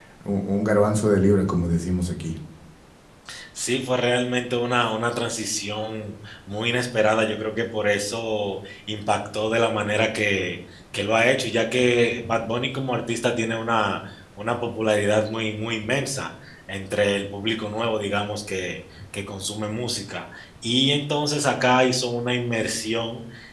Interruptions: none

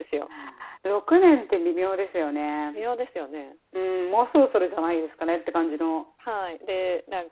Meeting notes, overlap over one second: none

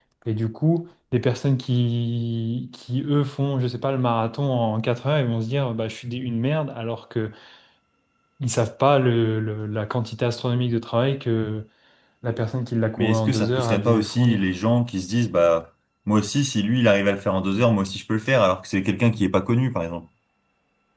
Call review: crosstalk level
present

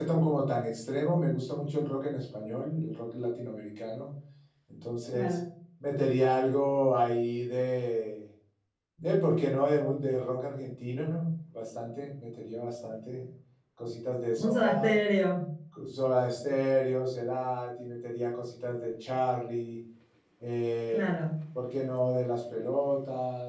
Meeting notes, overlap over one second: none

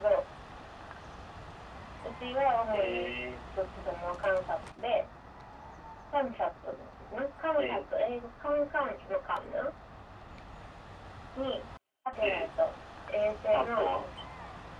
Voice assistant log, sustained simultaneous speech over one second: none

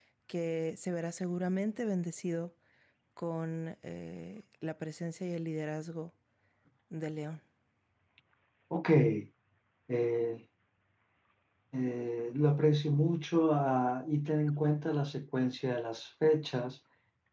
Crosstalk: none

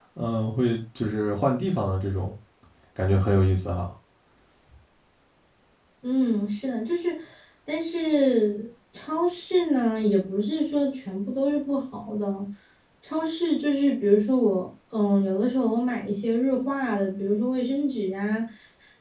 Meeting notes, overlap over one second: none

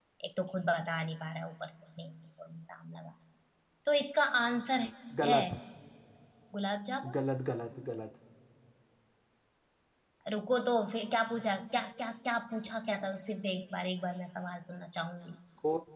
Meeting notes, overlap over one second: none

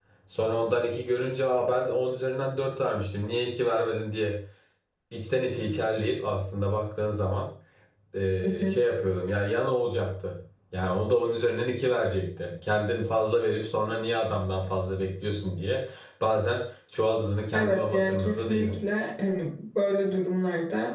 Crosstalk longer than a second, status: present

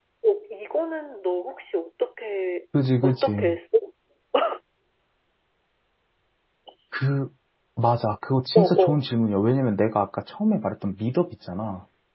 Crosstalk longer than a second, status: none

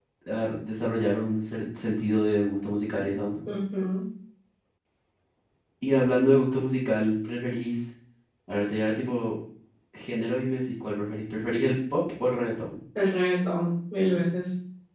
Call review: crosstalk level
none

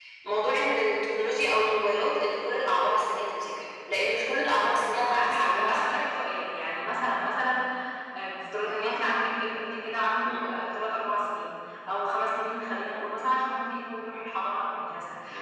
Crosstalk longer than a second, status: present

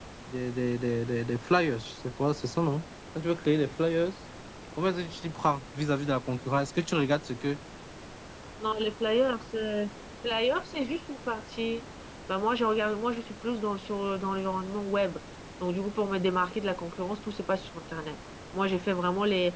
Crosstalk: none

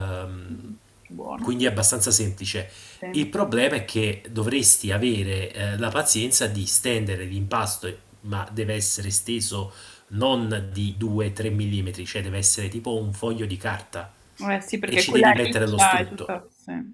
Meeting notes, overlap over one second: present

